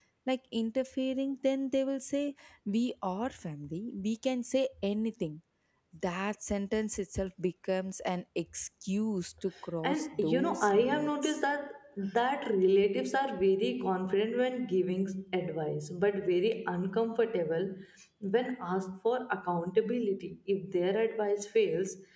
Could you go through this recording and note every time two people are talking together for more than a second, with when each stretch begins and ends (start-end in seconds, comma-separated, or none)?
9.8-11.4